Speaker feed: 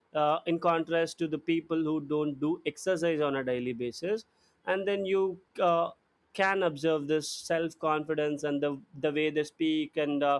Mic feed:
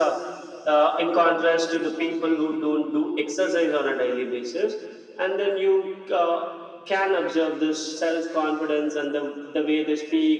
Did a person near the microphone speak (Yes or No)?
No